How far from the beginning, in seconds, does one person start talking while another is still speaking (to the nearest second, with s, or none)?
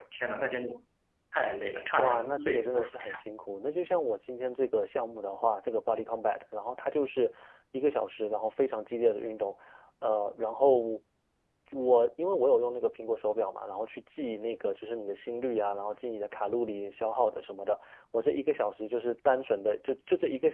2 s